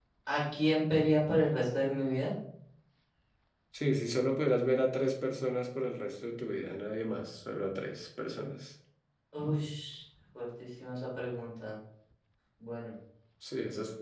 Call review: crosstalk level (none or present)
none